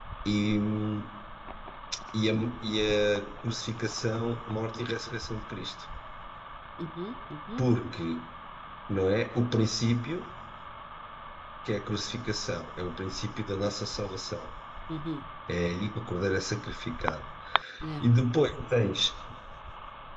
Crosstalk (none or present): none